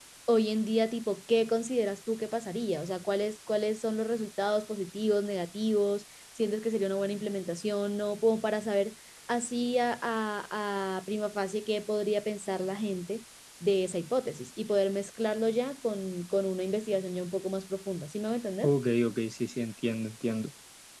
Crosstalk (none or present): none